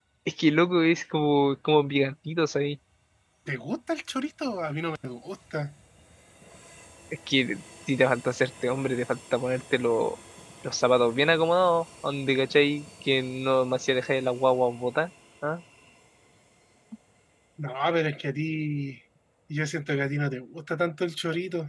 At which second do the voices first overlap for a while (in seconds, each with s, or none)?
none